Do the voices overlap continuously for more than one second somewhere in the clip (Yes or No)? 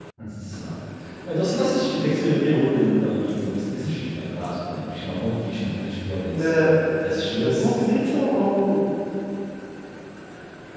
No